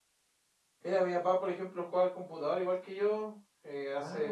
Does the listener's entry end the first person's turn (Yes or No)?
No